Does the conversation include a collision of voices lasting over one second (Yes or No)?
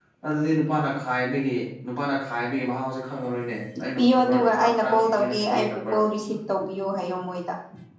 Yes